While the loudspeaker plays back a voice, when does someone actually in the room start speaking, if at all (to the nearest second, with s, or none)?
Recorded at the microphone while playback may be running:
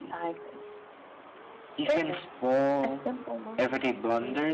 none